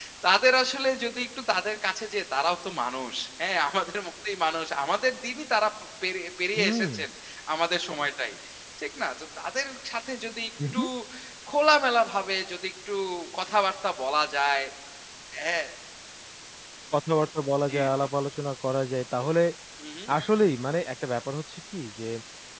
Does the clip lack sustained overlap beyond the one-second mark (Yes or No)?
Yes